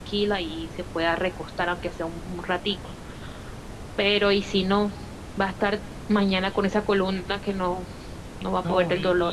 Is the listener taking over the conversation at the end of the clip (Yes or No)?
Yes